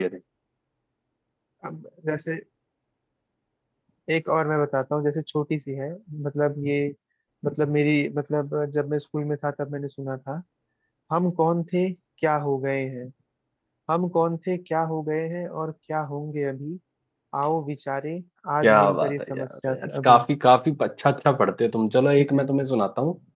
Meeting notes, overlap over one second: present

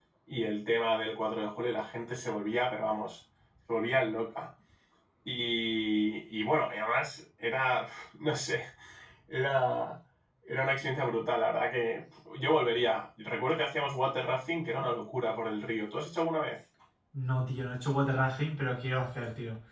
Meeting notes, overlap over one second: none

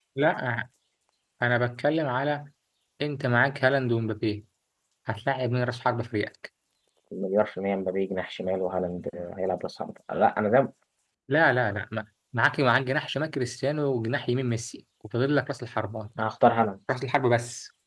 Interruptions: none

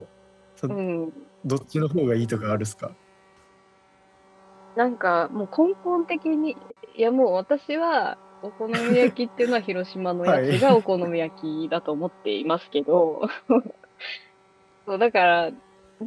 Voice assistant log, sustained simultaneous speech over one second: none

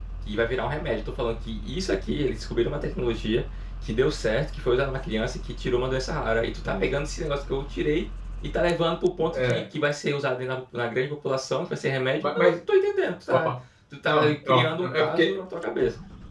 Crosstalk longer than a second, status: present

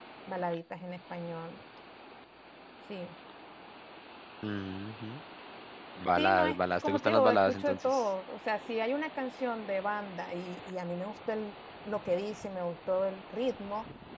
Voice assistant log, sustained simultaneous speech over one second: present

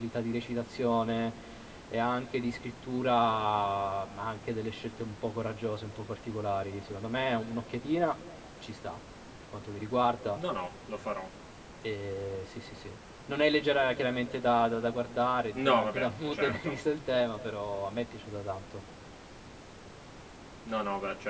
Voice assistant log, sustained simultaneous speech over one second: present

